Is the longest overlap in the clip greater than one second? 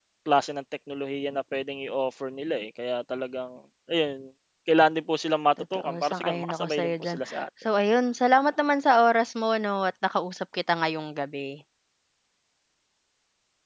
Yes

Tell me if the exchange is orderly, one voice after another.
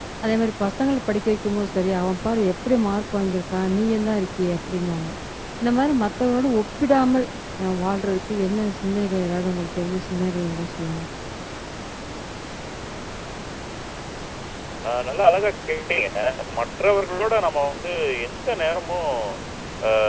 Yes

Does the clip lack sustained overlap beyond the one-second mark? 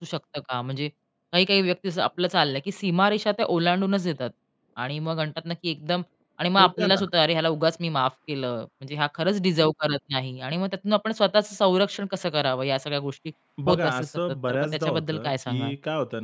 No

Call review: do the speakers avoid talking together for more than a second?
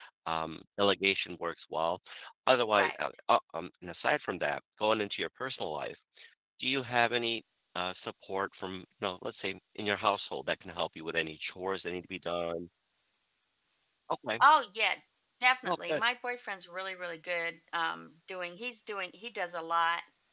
Yes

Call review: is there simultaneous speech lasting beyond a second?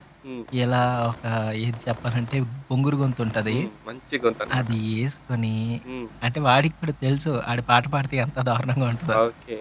No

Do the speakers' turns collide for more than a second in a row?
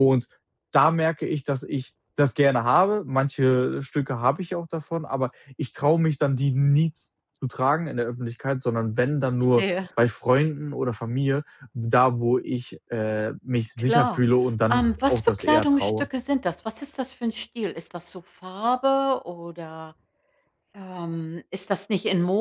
Yes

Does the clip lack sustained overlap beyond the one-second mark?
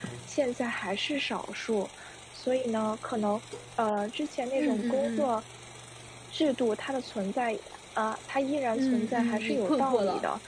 No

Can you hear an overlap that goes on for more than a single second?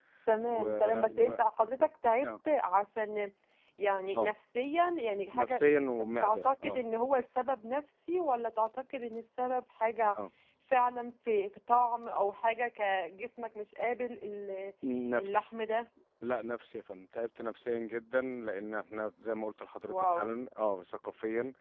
Yes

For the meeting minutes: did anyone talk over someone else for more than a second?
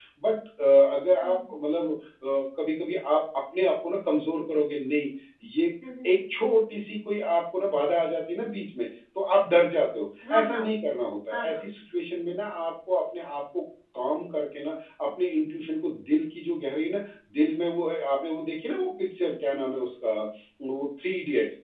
No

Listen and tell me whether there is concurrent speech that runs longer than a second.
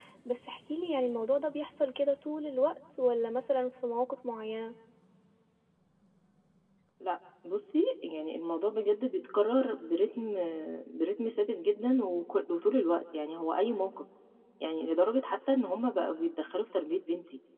No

